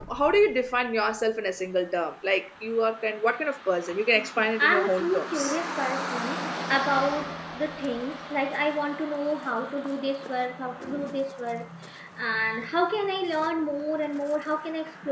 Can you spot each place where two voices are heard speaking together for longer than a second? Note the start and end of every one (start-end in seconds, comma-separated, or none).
4.1-5.6